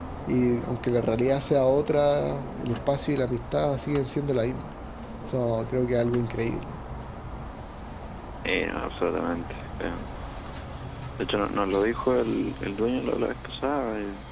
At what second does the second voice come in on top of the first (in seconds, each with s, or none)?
none